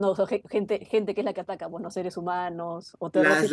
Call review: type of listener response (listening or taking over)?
taking over